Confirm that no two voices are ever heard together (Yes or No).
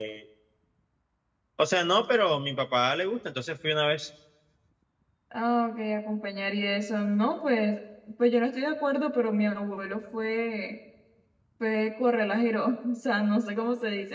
Yes